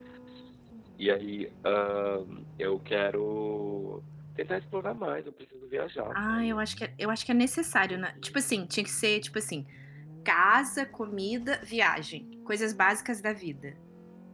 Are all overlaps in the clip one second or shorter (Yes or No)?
Yes